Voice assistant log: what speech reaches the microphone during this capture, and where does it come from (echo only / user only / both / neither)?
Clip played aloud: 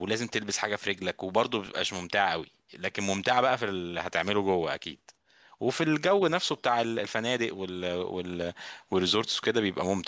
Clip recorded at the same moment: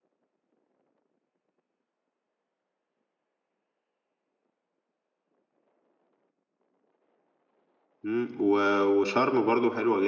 user only